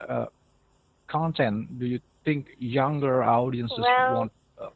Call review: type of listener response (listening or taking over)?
taking over